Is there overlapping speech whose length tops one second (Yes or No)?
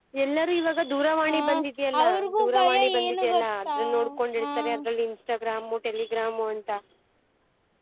Yes